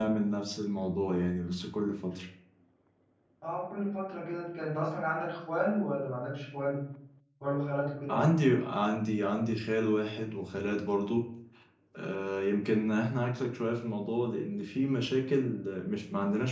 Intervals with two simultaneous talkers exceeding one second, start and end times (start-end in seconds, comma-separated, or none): none